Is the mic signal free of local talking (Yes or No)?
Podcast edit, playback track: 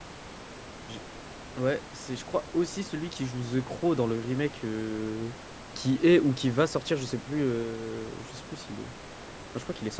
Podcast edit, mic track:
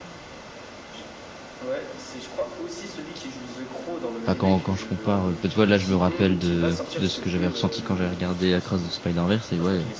No